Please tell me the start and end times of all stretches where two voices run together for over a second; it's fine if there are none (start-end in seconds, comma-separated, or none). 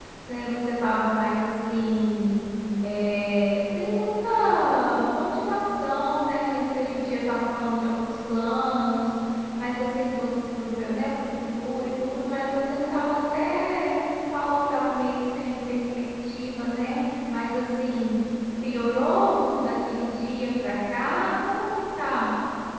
none